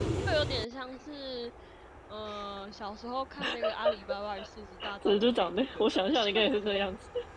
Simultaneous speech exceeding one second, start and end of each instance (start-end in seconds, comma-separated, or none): 5.0-6.4